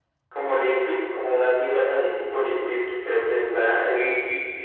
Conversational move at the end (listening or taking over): taking over